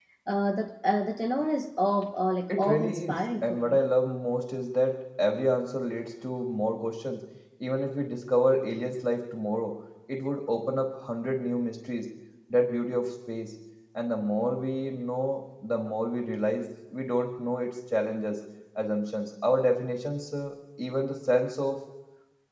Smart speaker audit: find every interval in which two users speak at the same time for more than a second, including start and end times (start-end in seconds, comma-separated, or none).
2.5-3.8